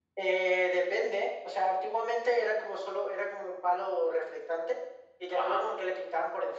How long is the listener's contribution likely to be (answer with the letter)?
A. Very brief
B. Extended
A